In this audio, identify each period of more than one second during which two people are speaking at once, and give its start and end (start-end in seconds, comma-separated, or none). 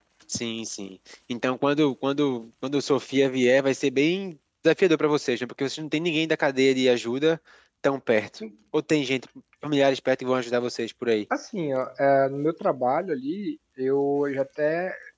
none